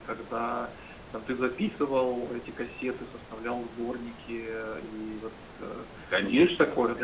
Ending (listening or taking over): taking over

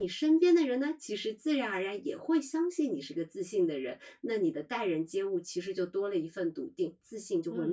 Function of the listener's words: taking over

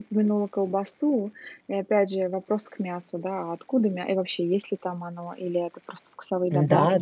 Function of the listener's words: taking over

